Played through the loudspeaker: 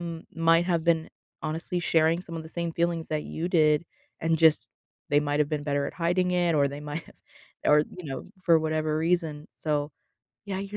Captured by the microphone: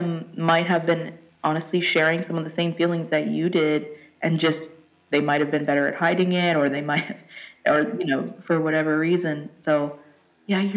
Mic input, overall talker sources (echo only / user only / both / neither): echo only